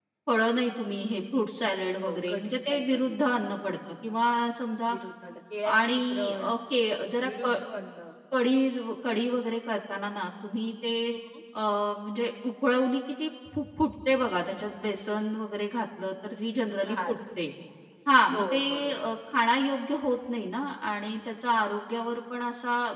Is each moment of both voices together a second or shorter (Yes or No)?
No